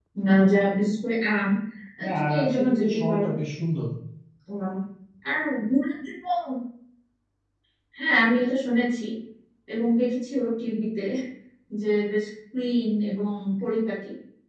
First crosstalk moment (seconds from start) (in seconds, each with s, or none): 2.0 s